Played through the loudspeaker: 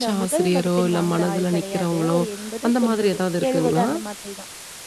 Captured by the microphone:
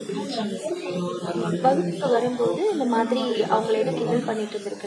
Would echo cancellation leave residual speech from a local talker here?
Yes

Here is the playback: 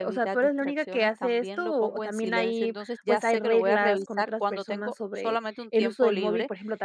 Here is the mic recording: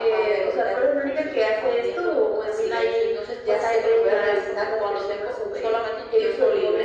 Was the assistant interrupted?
No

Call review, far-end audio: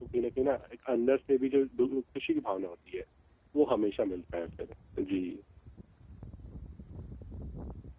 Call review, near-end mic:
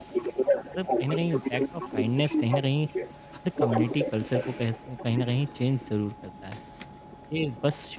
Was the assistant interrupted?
Yes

